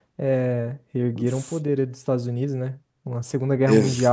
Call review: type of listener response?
listening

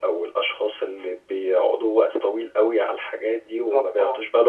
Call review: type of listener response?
listening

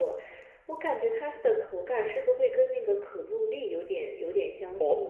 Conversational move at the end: taking over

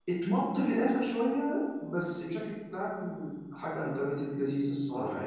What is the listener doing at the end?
taking over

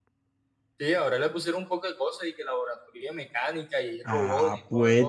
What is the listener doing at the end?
taking over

